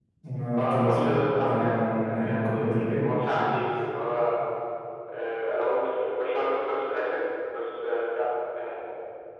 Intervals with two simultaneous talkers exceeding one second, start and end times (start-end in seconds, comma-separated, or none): 0.6-3.0